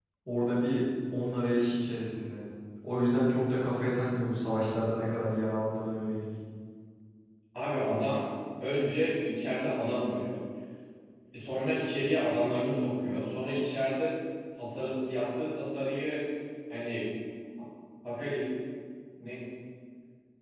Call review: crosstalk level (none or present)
none